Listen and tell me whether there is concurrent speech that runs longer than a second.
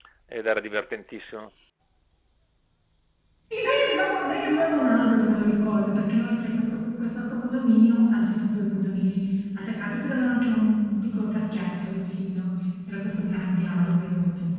No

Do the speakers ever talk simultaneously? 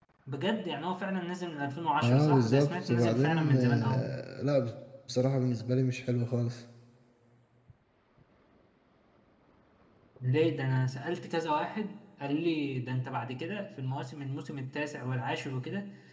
Yes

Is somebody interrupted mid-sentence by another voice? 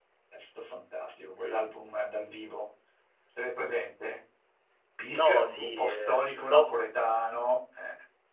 Yes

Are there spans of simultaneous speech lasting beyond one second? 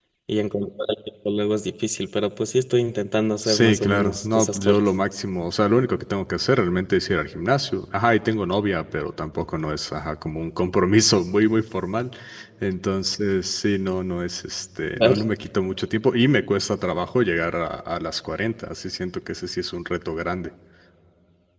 Yes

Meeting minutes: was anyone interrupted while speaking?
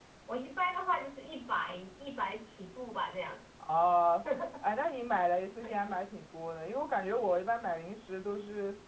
No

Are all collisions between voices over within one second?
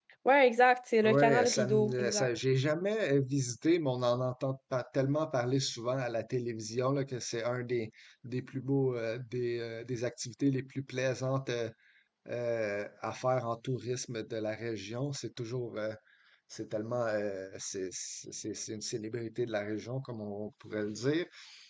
No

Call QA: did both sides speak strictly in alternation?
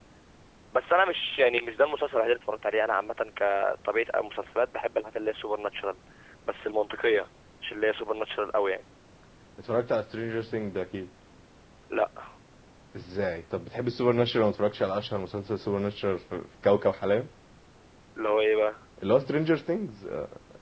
Yes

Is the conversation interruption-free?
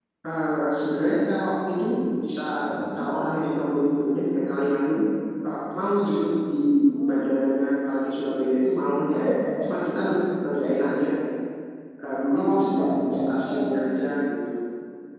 No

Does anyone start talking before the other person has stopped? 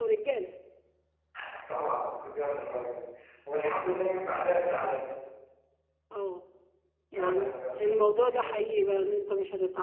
Yes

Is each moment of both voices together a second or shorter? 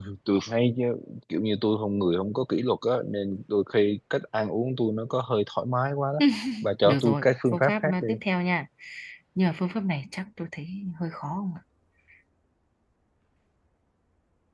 No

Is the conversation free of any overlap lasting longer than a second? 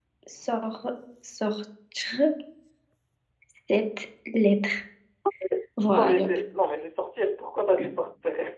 Yes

